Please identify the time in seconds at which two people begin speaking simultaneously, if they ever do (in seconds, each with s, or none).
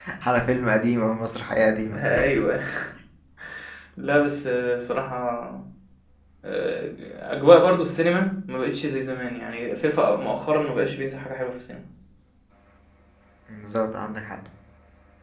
none